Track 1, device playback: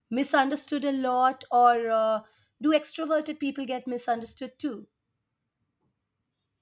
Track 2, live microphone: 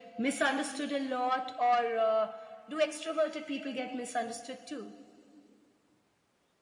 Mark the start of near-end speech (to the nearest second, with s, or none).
none